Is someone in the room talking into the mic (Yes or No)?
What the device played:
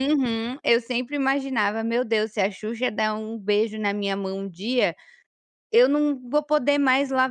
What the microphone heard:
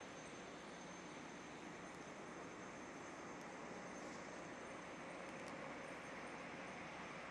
No